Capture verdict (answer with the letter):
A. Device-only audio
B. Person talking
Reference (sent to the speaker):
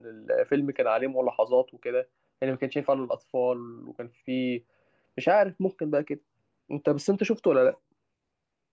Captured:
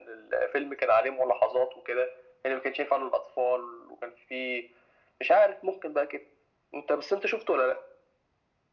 A